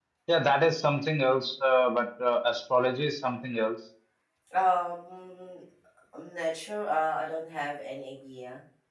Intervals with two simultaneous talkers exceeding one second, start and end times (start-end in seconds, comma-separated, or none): none